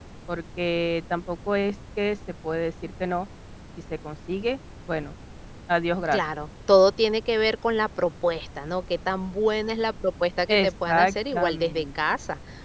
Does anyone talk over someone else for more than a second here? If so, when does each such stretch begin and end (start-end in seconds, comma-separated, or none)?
10.5-11.8